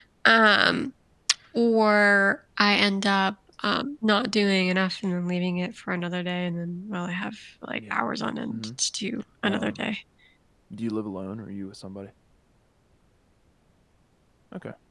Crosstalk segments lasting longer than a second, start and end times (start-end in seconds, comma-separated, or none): none